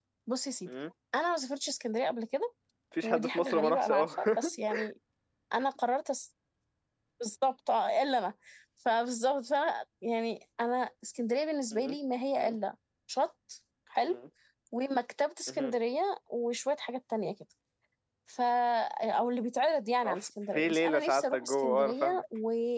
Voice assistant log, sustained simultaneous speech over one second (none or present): present